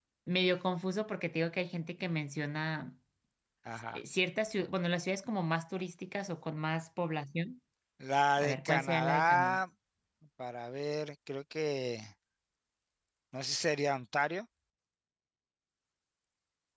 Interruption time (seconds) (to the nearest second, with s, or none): 8 s